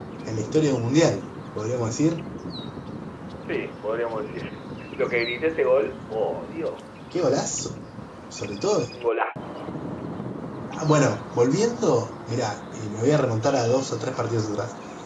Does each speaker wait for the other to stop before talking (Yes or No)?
Yes